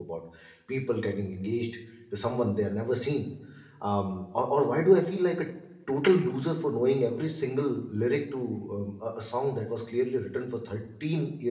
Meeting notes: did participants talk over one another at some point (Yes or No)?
No